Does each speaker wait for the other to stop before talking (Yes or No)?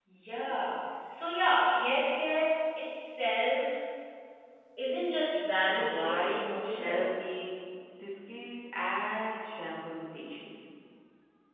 No